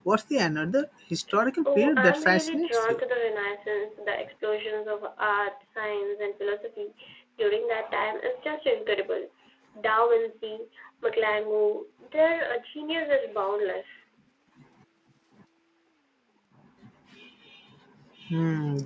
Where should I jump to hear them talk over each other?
1.6 s

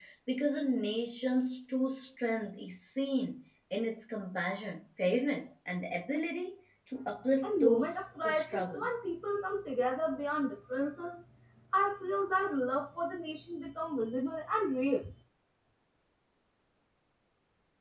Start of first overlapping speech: 7.4 s

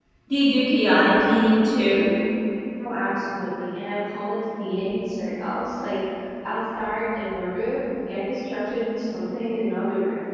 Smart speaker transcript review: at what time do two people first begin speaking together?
none

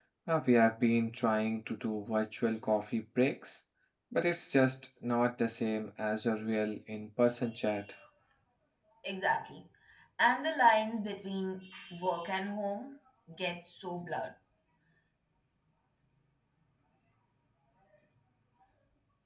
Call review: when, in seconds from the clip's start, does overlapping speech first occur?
none

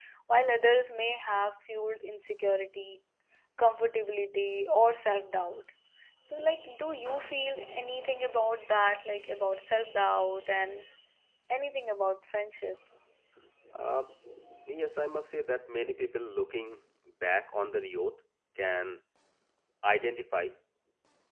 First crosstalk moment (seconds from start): none

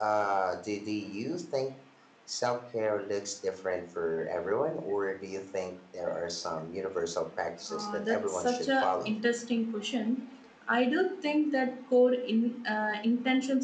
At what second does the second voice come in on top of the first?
7.7 s

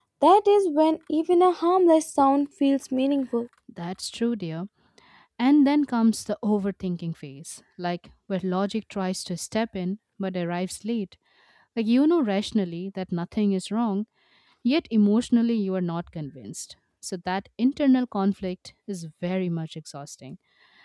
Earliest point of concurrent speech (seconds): none

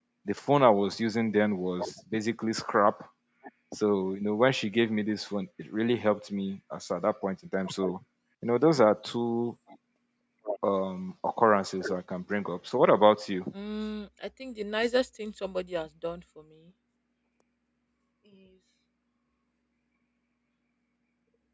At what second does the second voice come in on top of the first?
none

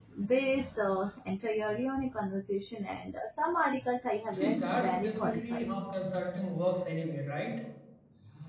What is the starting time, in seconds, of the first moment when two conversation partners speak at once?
4.3 s

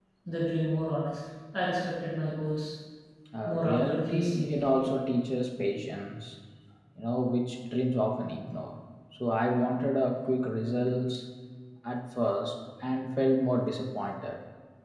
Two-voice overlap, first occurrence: 3.4 s

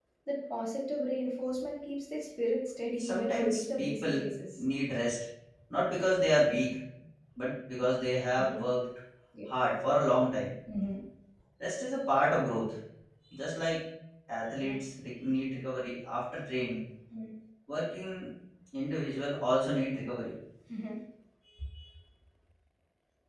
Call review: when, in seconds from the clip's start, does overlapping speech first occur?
3.0 s

